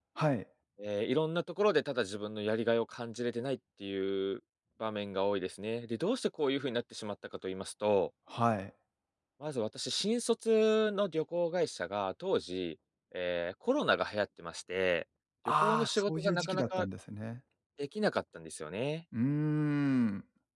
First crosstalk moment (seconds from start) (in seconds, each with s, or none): 15.6 s